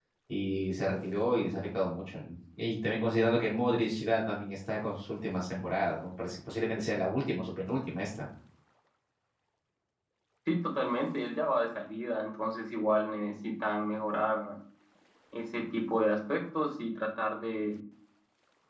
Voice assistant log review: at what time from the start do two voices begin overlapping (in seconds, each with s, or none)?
none